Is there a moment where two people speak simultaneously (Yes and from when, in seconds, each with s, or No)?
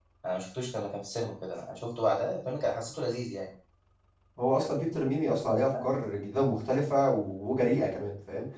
No